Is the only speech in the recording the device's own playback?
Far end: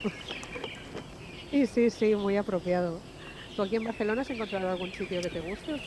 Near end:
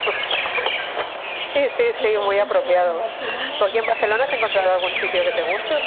No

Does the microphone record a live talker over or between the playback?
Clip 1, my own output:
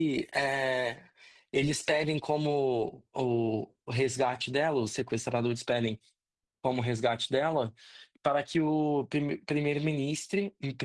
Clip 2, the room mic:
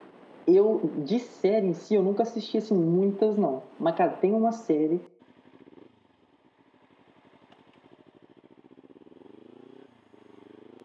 Yes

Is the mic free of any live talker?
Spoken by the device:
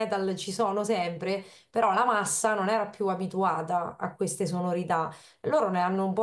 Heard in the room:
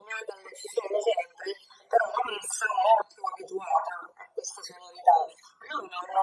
Yes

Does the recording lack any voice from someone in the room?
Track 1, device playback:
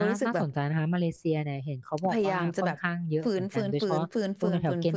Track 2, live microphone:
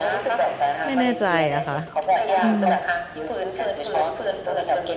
No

